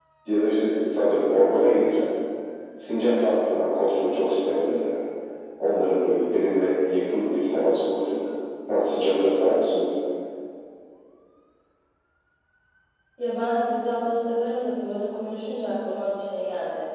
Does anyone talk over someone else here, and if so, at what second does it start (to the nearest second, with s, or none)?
none